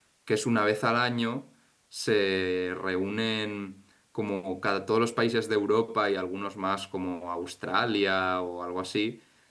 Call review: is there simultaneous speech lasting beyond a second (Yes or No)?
No